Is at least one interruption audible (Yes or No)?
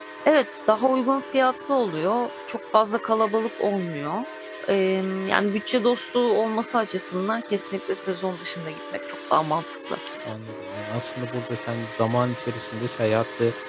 No